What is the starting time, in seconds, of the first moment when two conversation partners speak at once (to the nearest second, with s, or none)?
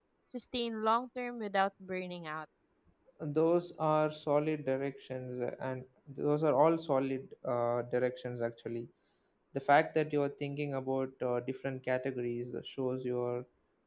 none